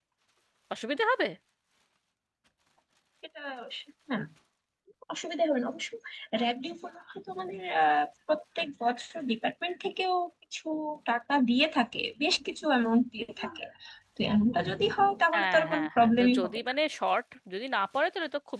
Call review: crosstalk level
present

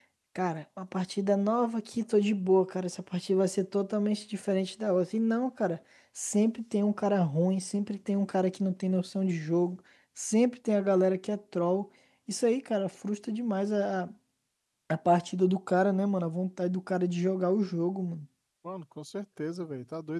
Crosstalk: none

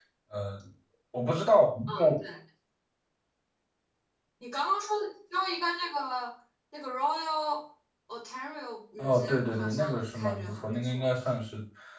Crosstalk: present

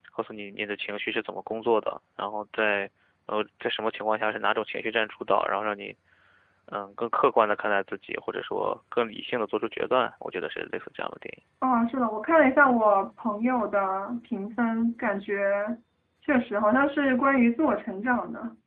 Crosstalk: none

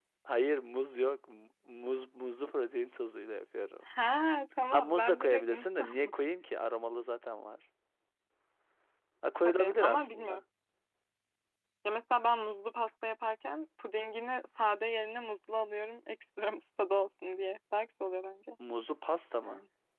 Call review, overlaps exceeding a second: present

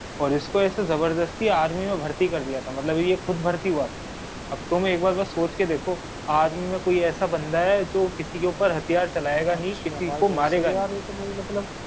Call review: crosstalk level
present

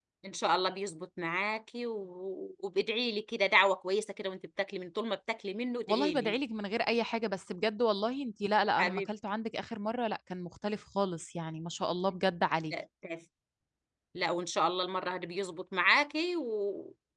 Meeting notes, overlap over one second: none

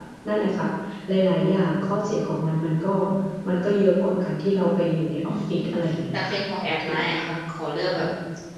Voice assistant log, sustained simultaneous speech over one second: none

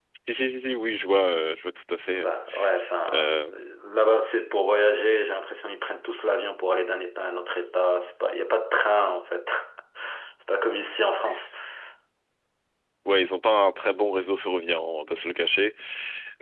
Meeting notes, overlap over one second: none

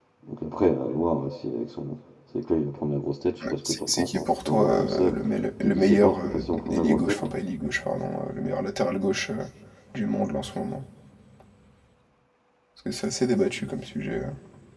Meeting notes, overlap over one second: present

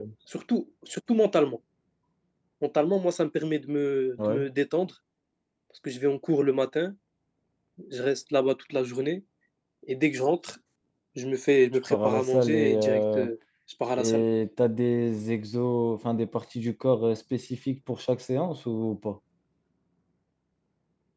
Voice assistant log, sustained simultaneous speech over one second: present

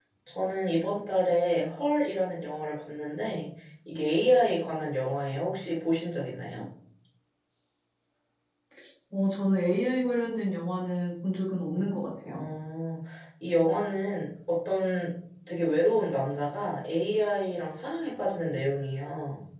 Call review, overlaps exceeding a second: none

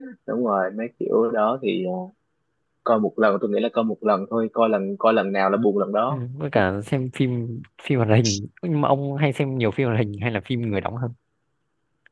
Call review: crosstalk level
none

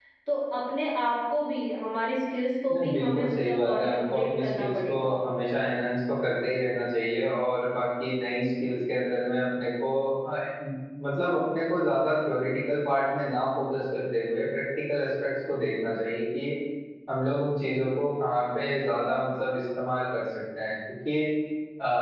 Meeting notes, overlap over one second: present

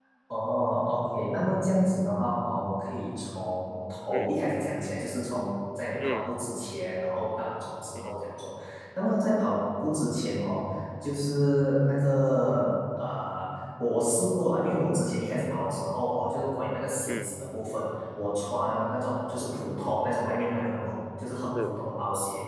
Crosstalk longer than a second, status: none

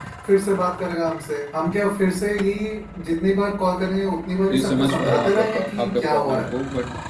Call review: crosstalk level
present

